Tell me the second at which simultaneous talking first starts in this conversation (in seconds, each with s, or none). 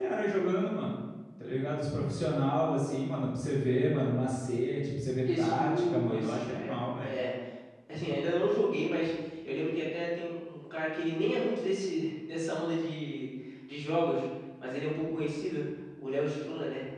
5.2 s